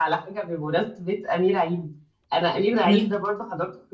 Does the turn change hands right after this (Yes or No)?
No